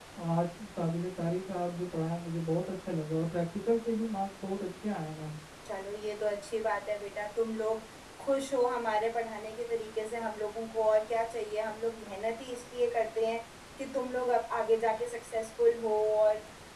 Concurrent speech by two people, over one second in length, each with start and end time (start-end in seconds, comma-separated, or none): none